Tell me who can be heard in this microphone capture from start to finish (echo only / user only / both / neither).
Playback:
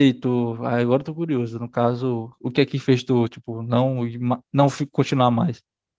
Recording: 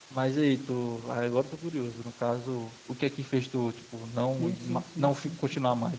both